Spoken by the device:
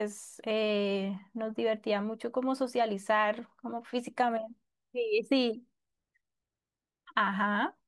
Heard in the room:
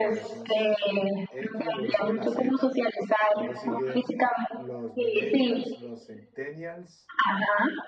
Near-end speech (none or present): present